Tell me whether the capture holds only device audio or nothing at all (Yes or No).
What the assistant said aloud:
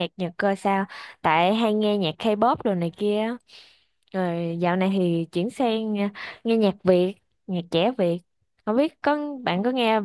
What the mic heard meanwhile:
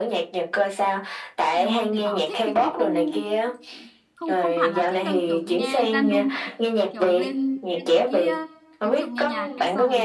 No